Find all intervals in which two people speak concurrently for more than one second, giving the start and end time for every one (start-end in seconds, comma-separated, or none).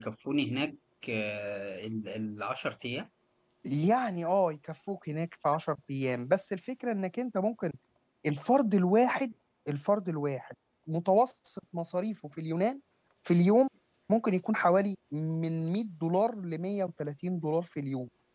none